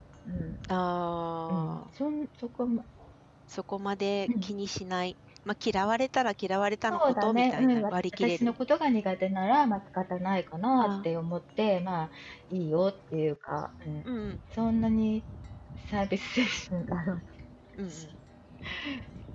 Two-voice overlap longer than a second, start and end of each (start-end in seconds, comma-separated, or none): 6.9-8.5